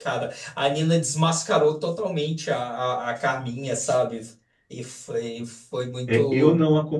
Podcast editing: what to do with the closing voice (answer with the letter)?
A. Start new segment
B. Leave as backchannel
A